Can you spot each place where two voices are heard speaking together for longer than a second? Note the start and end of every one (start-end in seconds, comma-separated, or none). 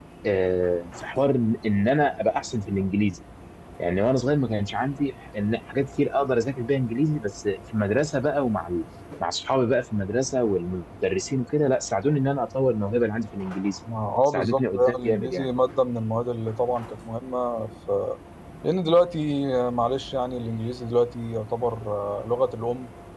14.3-15.5